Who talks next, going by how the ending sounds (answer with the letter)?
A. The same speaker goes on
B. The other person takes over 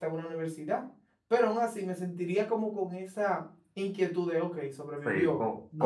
B